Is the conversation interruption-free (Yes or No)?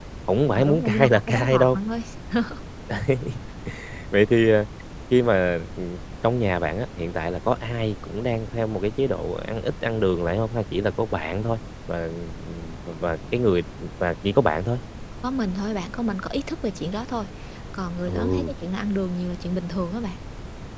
No